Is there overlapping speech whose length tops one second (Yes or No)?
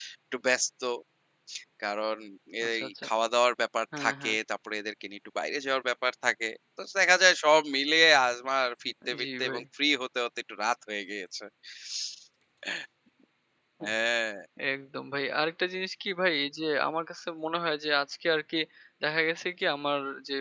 No